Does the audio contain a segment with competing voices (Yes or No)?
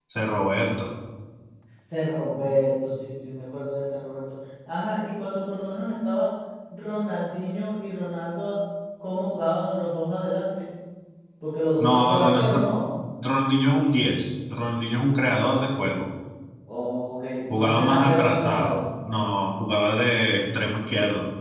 Yes